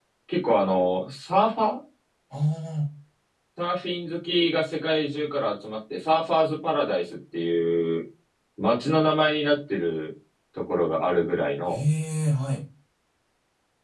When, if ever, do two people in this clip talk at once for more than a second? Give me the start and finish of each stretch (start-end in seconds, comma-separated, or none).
none